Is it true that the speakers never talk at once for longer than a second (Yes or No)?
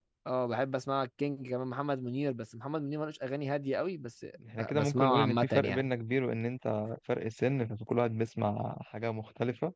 No